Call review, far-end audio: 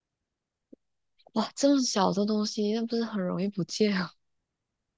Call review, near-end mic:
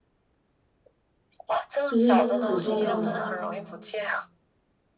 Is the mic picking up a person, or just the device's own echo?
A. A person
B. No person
A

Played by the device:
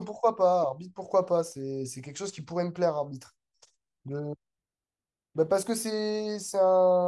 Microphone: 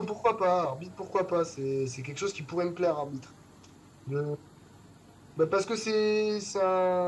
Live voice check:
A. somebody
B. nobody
B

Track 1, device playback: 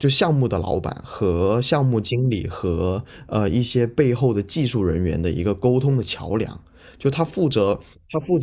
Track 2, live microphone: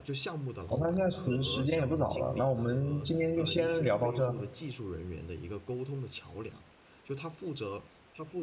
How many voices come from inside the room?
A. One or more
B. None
A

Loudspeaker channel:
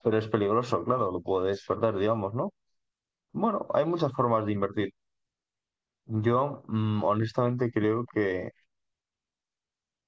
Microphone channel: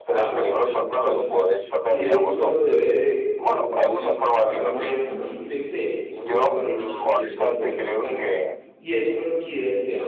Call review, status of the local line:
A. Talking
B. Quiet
A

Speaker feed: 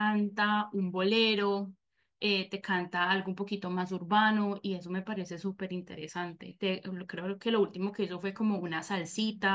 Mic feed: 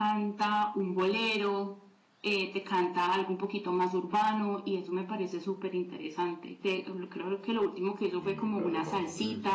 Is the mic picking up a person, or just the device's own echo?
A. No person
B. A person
B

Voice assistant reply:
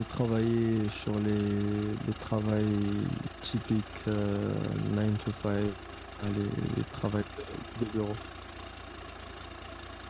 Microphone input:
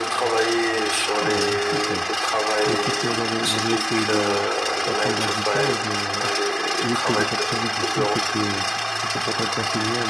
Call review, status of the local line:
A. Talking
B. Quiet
A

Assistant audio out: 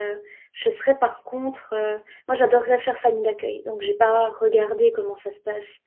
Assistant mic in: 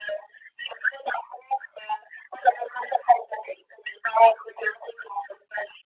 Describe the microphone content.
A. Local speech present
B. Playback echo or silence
B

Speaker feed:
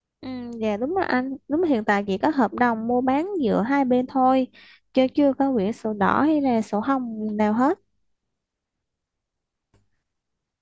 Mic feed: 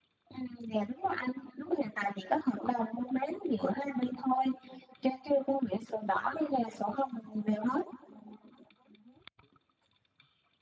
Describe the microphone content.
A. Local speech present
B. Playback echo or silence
B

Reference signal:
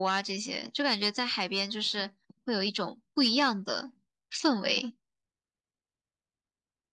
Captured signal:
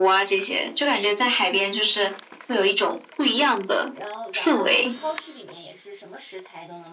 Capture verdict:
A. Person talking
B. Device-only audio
A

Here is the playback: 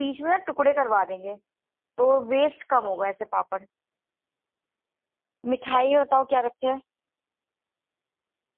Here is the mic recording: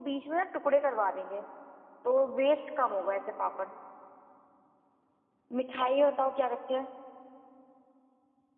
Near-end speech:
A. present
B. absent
B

